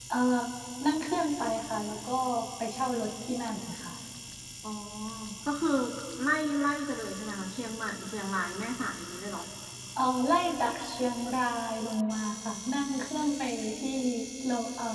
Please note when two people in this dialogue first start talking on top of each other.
none

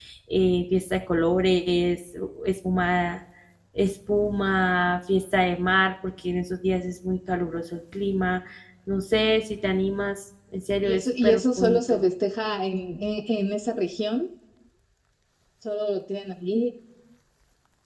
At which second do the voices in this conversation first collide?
11 s

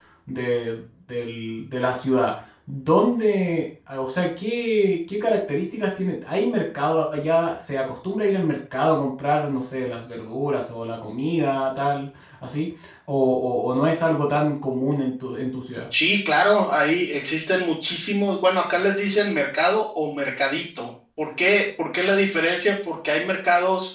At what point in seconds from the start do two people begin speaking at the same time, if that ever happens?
none

